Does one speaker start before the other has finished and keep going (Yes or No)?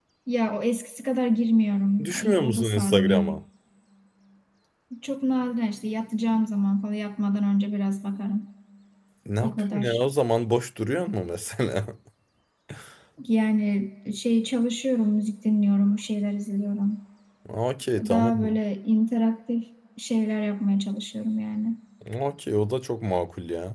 Yes